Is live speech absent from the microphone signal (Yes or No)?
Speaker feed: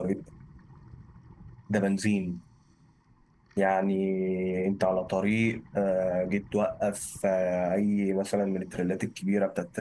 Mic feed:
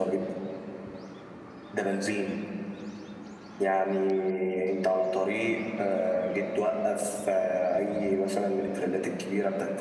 Yes